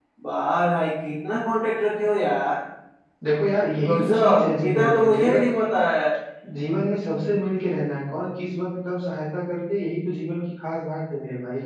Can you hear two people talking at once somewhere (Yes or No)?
Yes